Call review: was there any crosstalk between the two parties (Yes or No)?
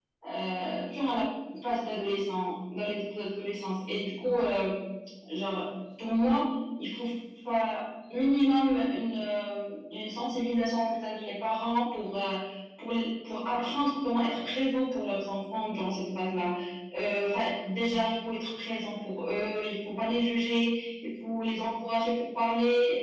No